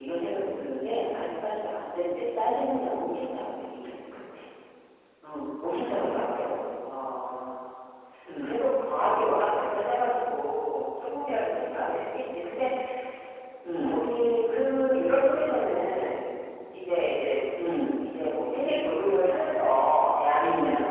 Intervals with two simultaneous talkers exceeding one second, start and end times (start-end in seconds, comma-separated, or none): none